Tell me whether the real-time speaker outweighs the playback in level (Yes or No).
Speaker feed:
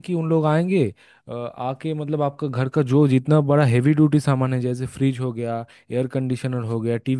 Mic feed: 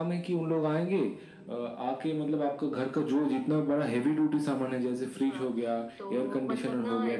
No